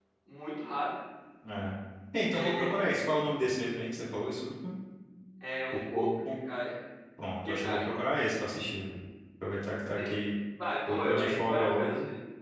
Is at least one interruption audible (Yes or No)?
Yes